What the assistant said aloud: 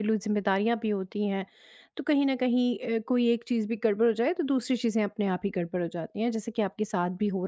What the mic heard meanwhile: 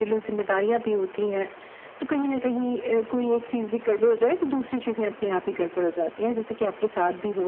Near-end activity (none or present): none